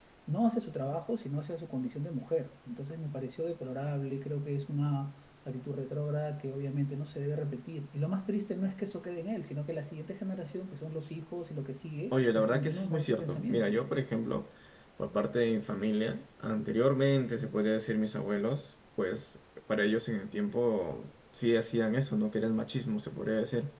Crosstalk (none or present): present